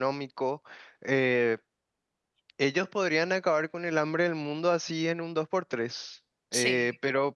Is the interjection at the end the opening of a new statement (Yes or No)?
No